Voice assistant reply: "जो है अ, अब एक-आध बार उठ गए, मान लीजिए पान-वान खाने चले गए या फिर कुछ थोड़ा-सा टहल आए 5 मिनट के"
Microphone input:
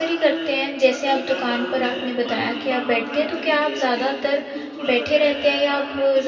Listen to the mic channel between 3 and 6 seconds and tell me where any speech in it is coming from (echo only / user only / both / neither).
both